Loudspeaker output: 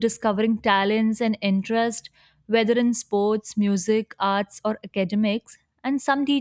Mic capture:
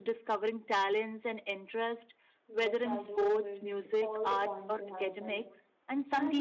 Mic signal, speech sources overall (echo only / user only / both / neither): both